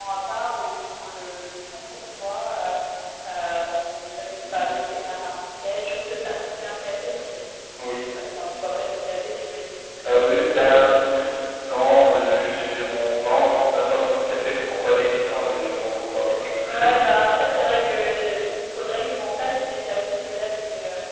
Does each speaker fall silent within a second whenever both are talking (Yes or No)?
Yes